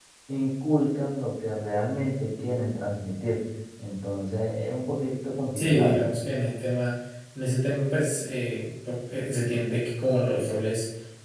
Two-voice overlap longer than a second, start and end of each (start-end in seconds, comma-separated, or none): none